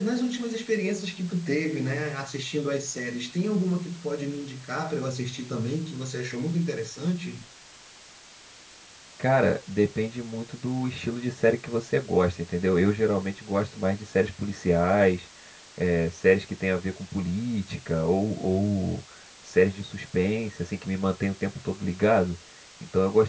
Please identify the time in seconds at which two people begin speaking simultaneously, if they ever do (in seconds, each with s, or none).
none